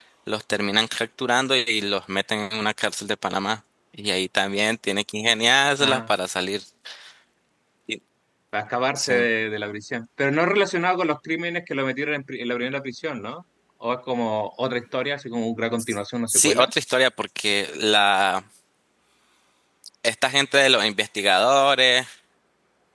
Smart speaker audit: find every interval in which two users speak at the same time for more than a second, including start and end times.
none

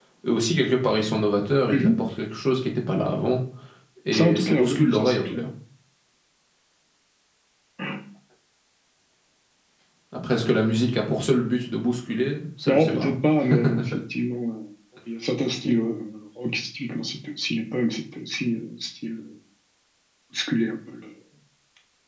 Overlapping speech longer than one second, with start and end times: 4.1-5.4

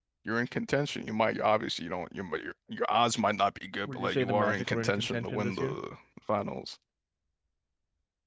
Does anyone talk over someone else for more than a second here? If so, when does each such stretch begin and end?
3.8-5.8

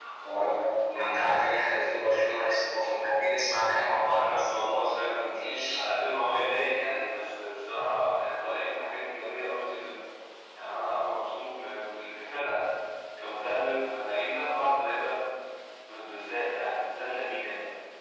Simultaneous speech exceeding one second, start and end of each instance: 4.1-5.8

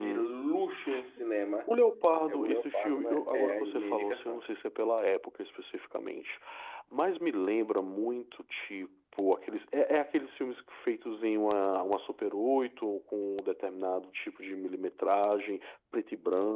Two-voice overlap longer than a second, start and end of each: 2.3-4.4

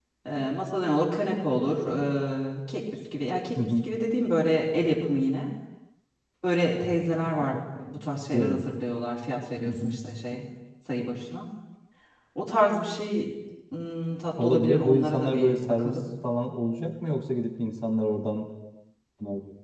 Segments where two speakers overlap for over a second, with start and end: 14.4-16.0

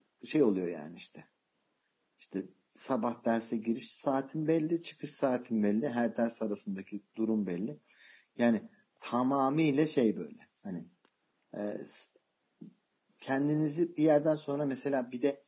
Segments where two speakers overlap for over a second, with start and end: none

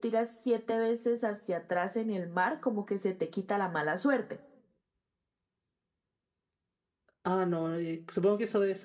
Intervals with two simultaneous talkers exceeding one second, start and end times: none

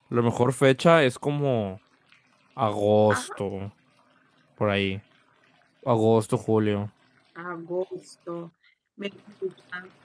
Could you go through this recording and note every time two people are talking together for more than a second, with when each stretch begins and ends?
none

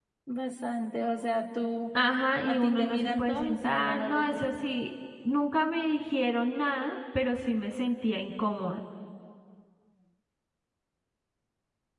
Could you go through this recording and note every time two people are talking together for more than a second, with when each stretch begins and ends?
2.5-4.5

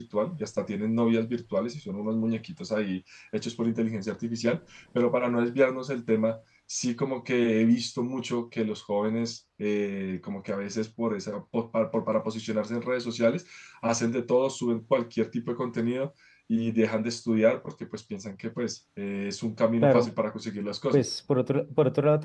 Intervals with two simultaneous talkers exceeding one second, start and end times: none

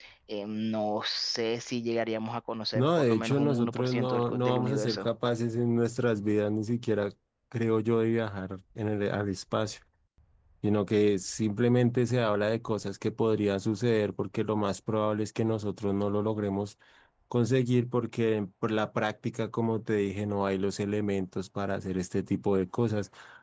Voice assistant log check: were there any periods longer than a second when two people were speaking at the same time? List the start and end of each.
2.8-5.1

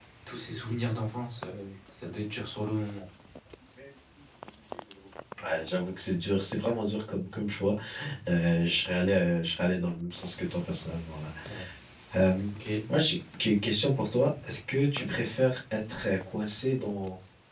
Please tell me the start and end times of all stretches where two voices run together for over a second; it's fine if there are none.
none

